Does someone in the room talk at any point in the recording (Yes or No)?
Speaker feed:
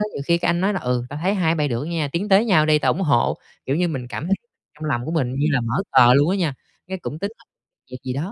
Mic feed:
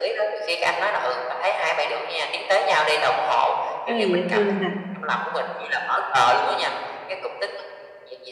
Yes